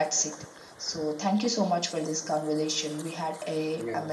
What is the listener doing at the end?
listening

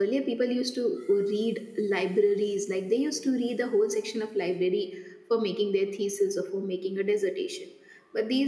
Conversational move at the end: listening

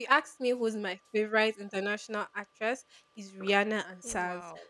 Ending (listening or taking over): listening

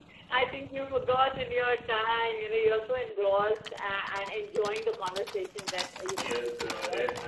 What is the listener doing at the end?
taking over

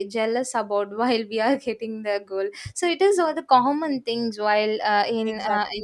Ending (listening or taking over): taking over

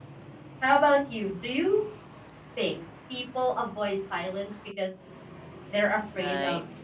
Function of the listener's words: taking over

